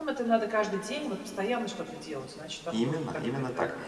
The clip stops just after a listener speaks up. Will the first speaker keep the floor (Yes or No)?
No